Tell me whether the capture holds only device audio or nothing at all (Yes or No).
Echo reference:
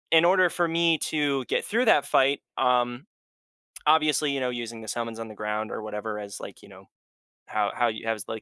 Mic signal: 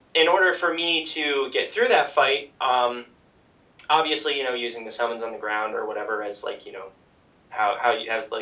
Yes